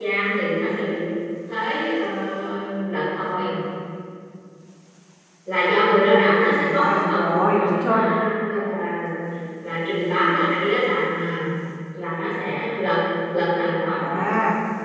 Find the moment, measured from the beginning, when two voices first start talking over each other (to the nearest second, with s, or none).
7 s